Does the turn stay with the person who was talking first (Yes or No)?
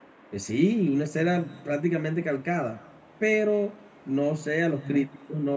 Yes